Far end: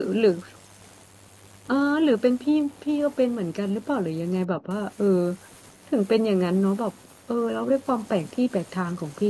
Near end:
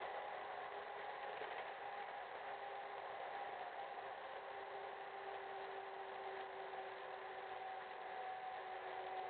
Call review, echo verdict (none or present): none